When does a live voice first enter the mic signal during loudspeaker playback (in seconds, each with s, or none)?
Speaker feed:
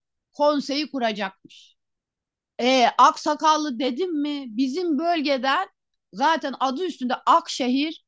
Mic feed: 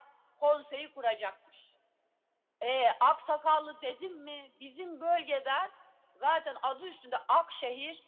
none